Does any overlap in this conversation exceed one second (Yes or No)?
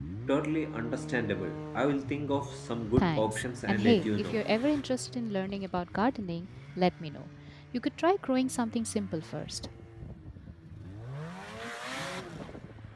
Yes